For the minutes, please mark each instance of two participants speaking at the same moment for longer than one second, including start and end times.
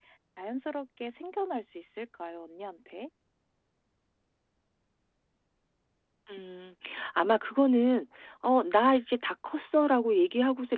none

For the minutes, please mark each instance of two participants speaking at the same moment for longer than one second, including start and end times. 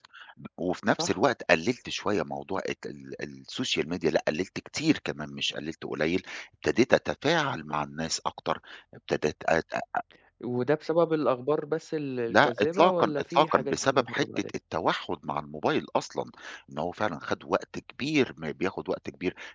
12.3-14.5

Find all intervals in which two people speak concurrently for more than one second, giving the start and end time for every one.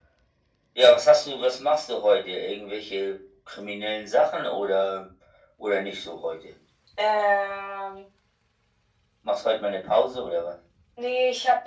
none

